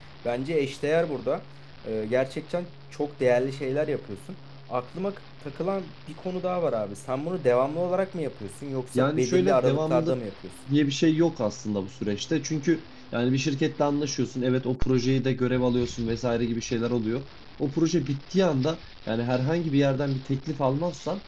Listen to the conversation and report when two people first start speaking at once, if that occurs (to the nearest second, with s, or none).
9 s